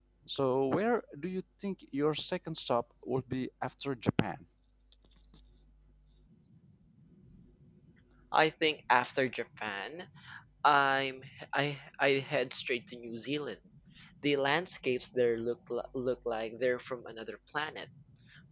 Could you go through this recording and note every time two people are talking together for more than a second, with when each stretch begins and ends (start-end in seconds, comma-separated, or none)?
none